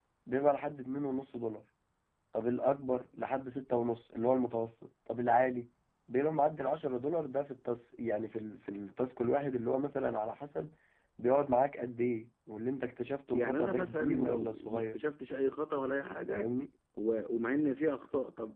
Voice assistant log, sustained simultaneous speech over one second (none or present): present